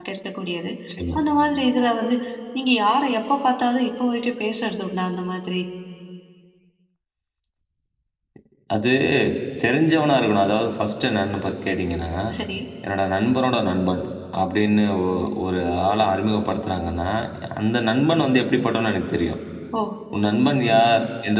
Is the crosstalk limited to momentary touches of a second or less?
Yes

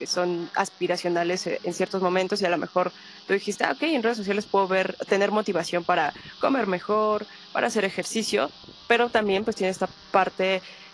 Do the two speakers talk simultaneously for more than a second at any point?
No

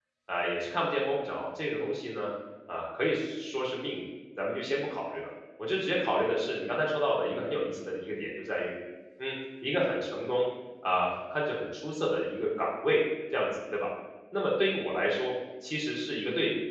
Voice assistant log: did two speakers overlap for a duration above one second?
No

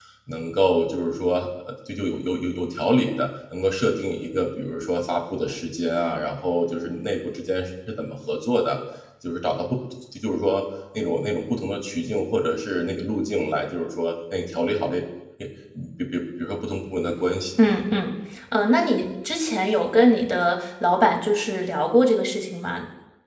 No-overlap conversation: Yes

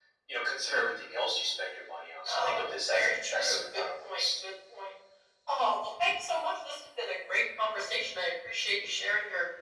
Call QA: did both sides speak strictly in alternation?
No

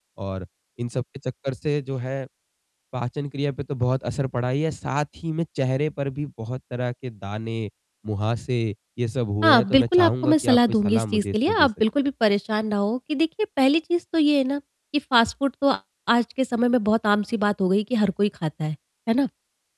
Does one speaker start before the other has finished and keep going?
Yes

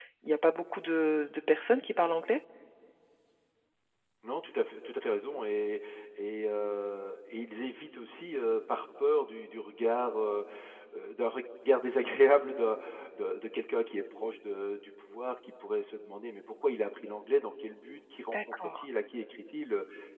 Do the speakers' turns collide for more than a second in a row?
No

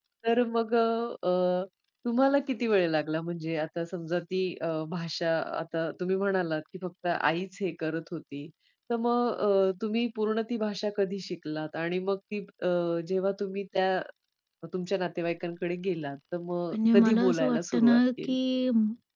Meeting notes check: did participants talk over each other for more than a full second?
Yes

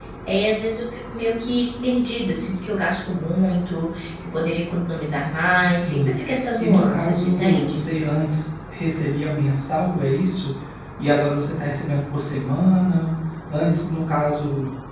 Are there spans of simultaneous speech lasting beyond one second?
Yes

